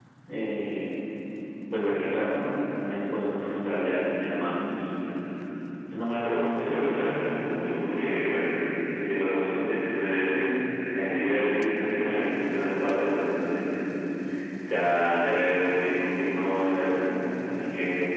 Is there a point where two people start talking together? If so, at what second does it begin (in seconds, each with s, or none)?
6.2 s